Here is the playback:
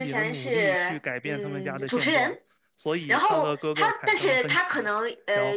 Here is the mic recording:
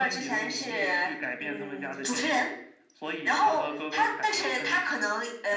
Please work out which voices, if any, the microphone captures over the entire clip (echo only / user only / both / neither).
echo only